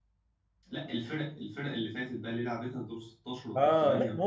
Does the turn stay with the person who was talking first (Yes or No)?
No